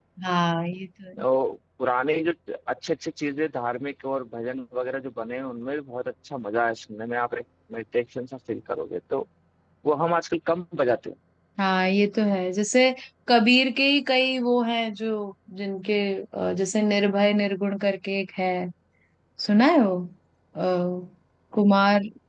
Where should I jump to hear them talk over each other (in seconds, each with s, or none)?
none